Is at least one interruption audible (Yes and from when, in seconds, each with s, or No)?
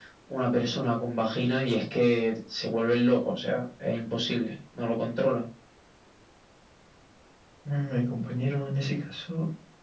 No